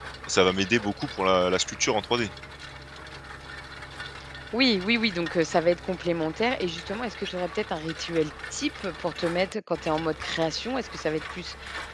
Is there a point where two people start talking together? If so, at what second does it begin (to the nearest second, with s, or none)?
none